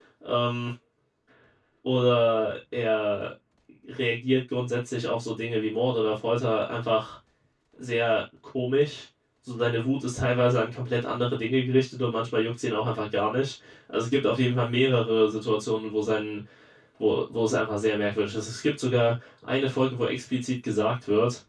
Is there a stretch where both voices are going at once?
No

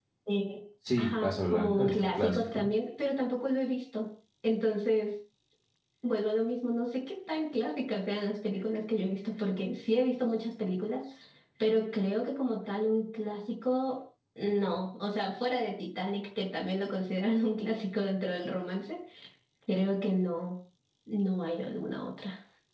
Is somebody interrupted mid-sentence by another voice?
Yes, from 1.0 s

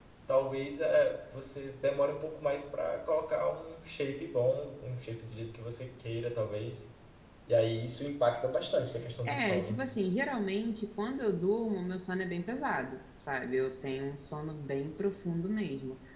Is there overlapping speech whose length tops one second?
No

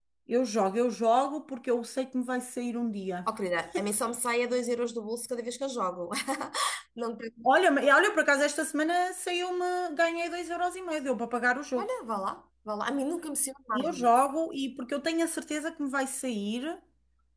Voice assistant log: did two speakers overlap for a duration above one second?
No

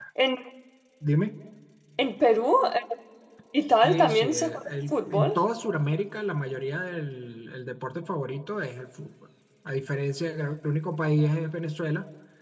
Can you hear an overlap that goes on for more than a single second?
Yes, from 3.8 s

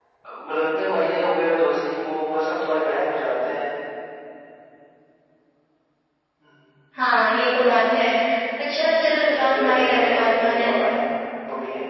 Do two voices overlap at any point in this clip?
Yes, from 9.4 s

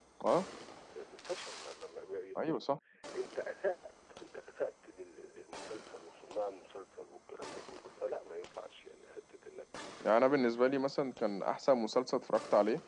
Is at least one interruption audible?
No

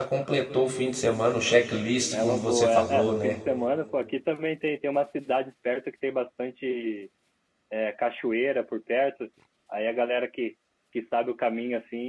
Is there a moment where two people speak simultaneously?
Yes, from 2.1 s

